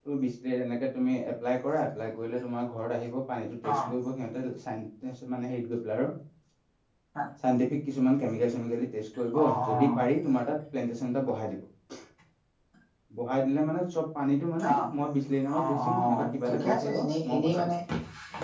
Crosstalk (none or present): present